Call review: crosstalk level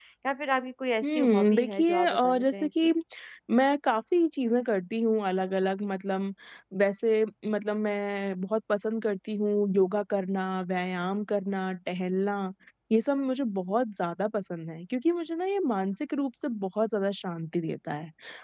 present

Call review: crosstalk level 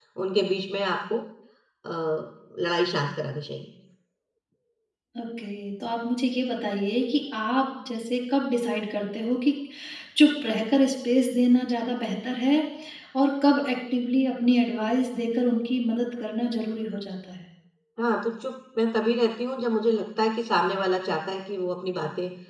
none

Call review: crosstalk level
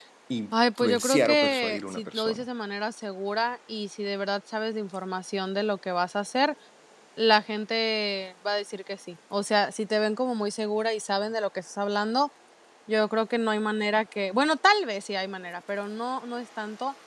present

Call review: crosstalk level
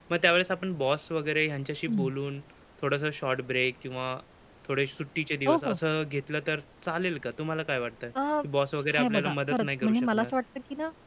present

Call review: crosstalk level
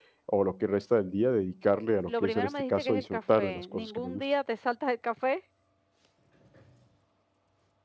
present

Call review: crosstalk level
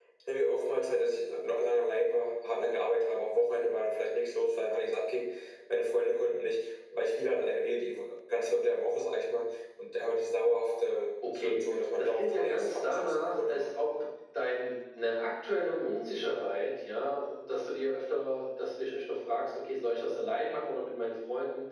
present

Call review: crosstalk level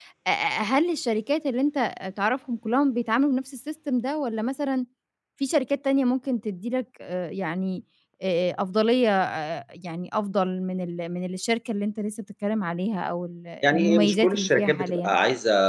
present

